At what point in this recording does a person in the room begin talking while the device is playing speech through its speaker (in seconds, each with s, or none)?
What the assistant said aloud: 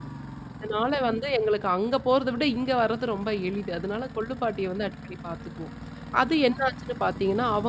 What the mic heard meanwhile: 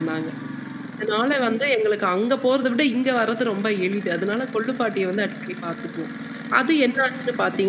none